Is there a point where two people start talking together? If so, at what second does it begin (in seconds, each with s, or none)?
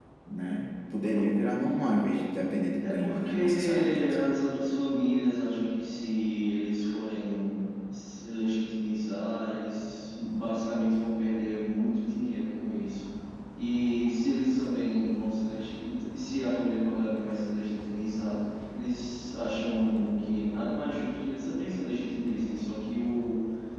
2.8 s